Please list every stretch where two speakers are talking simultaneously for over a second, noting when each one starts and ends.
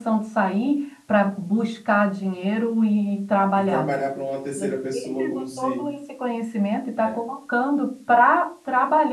4.6-5.9

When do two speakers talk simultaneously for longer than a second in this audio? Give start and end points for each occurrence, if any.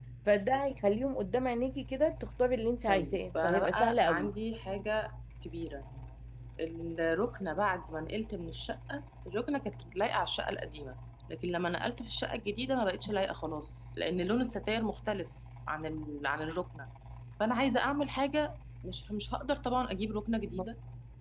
2.9-4.3

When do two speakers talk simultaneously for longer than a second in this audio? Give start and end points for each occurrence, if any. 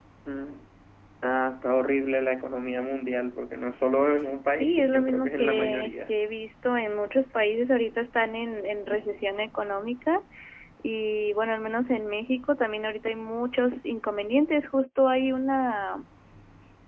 4.6-6.1

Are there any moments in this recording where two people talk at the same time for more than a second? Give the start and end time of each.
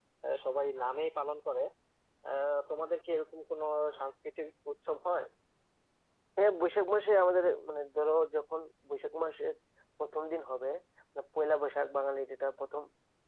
none

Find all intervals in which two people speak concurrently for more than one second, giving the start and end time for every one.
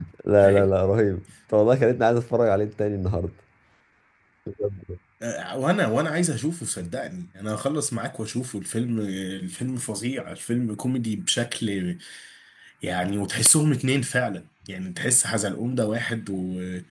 none

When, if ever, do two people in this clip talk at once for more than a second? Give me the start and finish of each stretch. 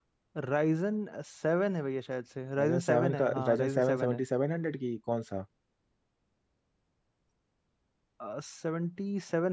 2.6-4.2

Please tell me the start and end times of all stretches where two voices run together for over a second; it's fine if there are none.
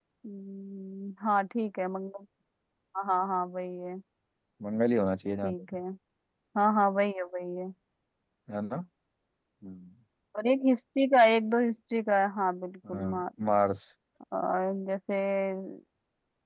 none

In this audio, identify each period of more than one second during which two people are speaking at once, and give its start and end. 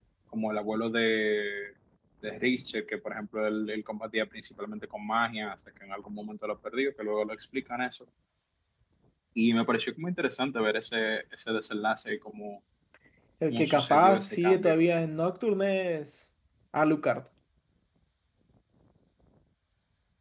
13.5-14.8

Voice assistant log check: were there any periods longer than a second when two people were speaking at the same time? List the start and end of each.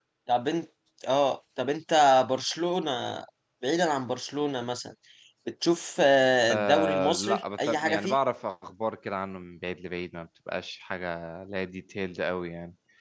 6.5-8.2

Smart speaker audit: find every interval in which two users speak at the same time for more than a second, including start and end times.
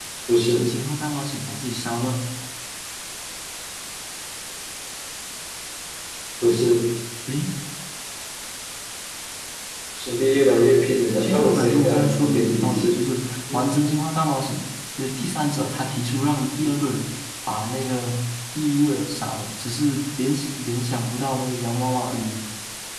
11.2-13.0

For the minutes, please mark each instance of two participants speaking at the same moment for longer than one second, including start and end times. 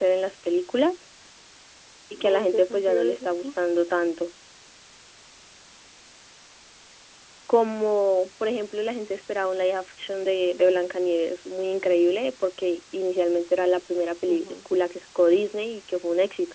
2.2-3.6

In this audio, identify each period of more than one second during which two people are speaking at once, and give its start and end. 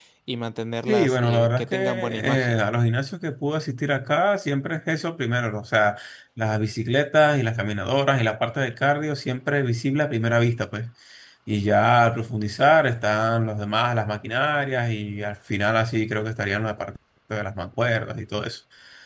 0.9-2.6

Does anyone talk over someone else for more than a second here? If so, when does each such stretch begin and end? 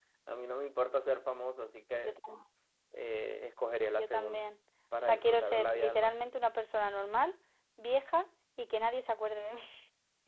5.0-6.3

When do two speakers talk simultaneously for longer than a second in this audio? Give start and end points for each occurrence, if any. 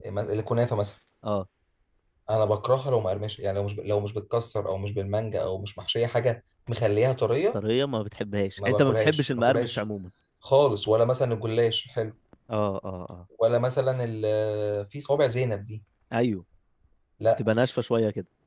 8.6-9.8

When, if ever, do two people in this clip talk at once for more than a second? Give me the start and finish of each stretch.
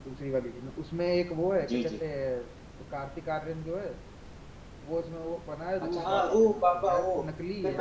5.8-7.0

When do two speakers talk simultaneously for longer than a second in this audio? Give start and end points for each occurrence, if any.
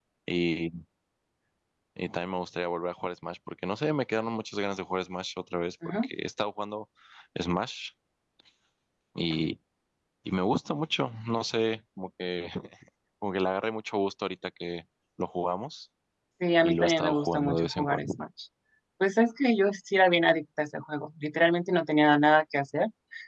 16.6-18.1

